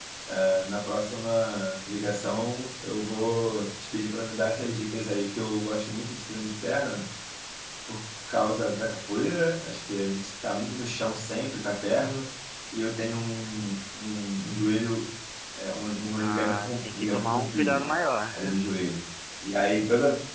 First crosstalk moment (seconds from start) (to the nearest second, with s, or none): 16 s